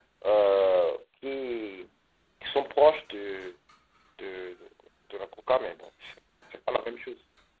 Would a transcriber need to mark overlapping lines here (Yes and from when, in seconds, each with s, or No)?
No